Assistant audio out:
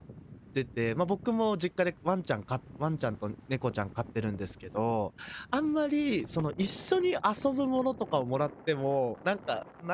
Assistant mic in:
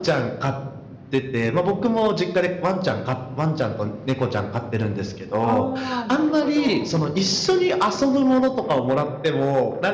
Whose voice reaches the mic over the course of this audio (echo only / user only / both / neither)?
both